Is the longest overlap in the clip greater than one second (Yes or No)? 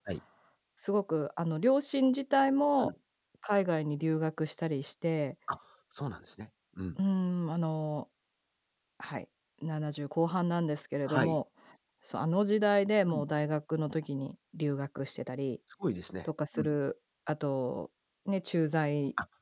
No